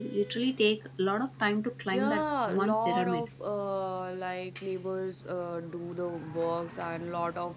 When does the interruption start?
2 s

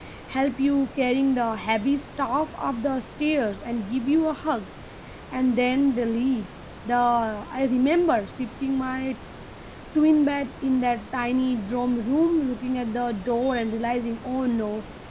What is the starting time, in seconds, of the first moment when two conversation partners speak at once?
none

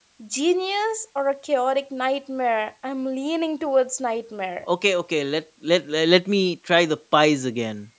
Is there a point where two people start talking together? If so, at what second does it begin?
none

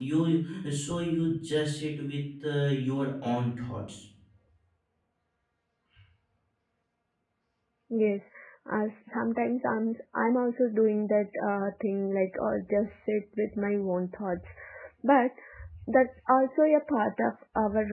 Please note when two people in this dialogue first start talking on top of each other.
none

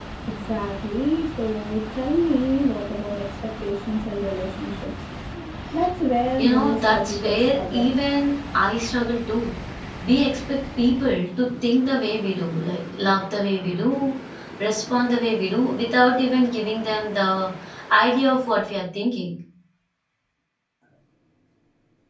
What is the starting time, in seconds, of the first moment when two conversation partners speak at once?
6 s

